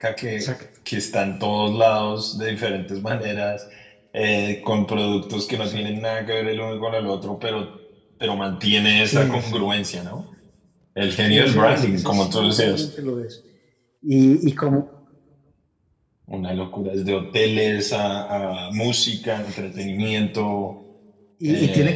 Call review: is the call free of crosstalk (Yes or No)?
No